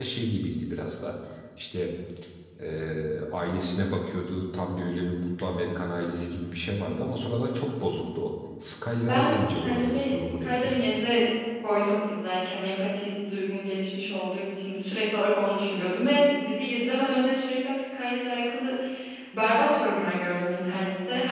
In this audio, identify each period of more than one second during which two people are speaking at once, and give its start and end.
9.1-10.7

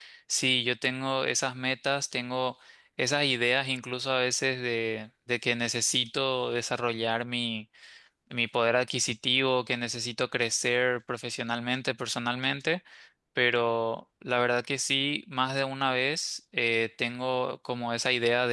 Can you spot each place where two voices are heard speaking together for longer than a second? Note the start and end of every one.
none

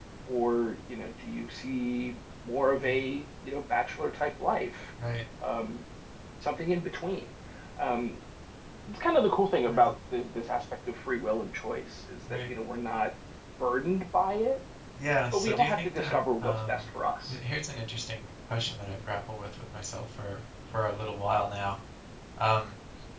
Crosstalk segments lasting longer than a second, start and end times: 15.3-16.9

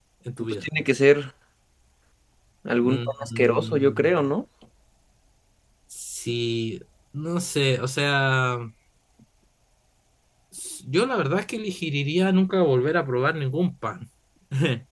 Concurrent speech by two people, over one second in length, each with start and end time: 2.8-4.1

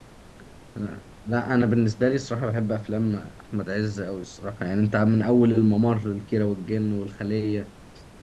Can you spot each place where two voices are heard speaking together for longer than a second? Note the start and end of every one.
none

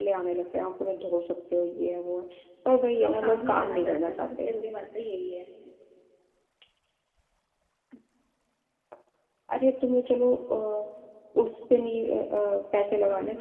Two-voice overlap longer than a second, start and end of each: 3.0-4.5

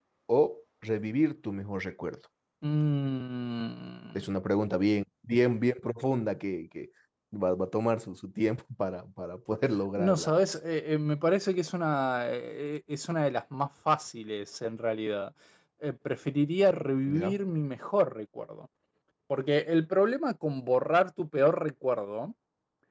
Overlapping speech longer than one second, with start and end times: none

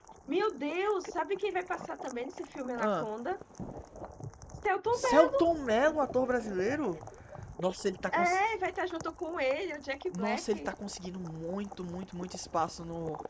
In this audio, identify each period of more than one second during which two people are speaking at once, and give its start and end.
none

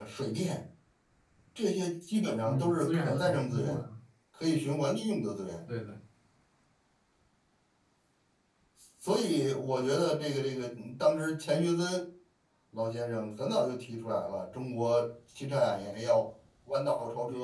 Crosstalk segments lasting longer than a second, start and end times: 2.4-3.8

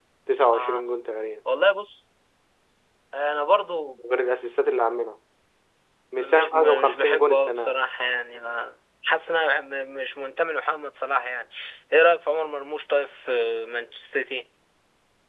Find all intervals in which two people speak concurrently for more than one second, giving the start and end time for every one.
6.2-7.8

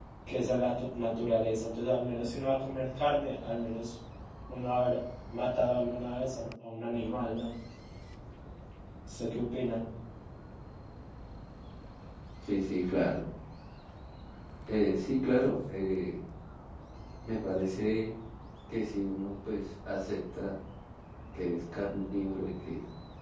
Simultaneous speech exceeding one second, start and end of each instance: none

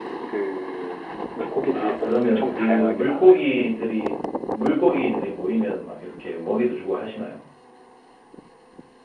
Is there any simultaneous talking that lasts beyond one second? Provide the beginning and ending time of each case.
1.7-3.3

